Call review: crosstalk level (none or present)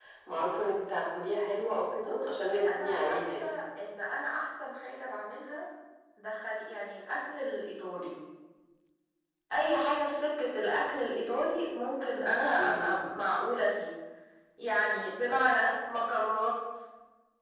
present